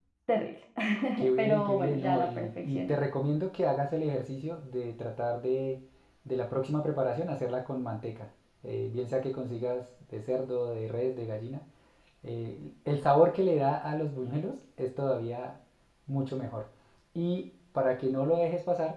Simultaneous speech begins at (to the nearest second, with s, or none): 1 s